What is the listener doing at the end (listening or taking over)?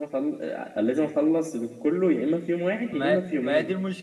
taking over